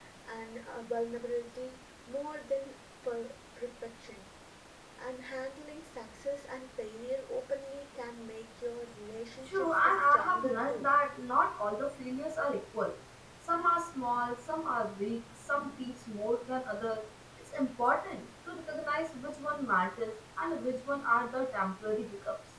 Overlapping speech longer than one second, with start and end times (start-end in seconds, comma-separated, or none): 9.5-10.9